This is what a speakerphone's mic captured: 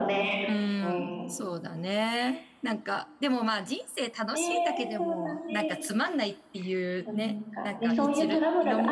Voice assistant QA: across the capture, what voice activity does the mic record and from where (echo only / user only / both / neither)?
both